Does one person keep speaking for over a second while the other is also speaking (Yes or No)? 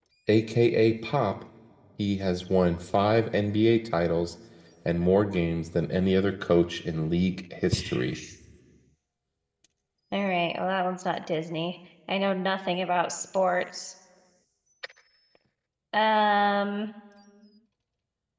No